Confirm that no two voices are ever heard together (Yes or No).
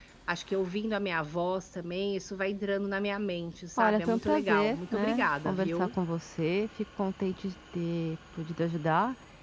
No